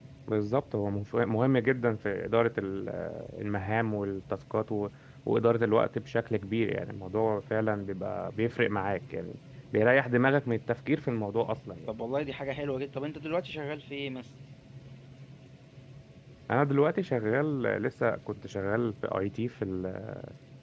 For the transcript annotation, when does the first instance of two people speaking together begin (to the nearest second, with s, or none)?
none